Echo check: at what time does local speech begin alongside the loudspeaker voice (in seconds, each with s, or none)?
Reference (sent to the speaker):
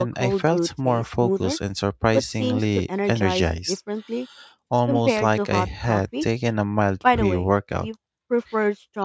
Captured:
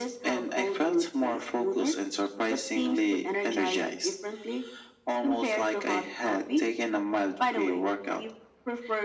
none